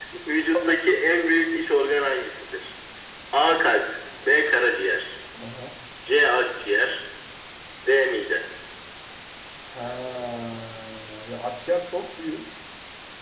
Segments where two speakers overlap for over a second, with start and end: none

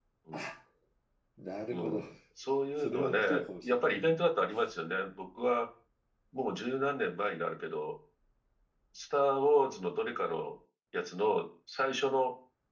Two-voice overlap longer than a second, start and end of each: 2.8-4.1

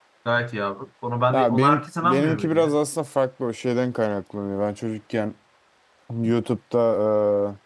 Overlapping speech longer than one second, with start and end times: 1.3-2.7

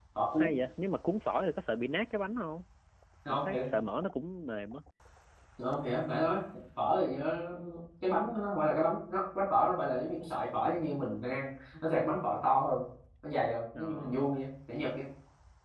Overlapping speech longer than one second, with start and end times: none

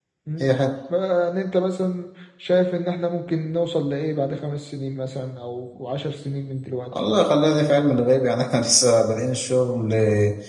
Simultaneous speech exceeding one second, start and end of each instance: none

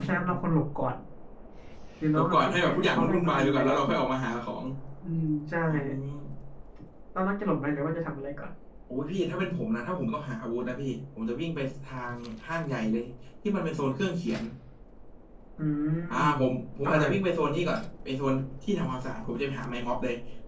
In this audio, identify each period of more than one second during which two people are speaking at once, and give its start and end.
2.2-3.8

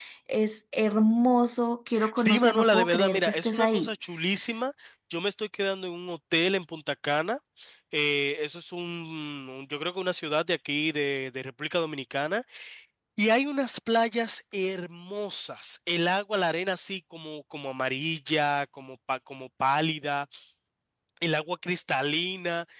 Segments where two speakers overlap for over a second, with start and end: 2.1-3.9

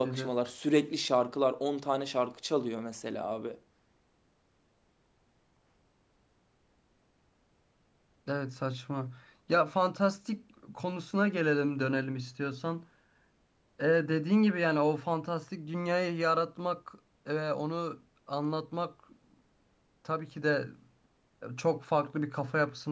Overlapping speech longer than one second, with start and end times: none

